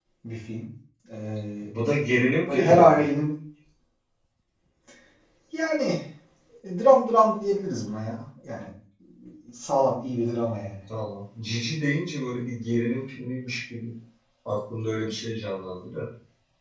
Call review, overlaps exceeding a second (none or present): none